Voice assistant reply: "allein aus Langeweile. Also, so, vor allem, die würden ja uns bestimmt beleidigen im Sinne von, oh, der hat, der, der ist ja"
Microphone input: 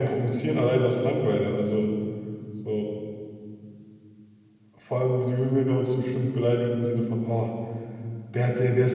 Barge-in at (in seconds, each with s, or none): none